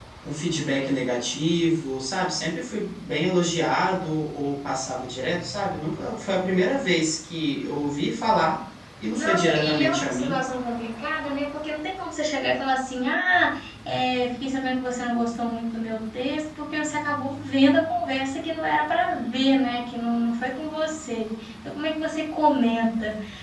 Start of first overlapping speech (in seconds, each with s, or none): 9.2 s